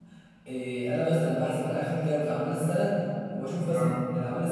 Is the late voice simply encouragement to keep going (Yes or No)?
Yes